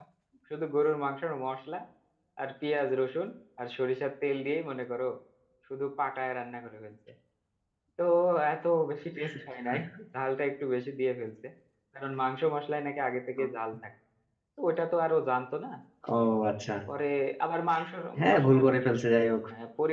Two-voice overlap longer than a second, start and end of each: none

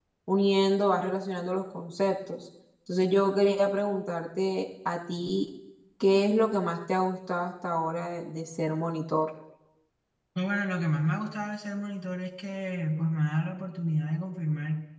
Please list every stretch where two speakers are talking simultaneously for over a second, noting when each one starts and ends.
none

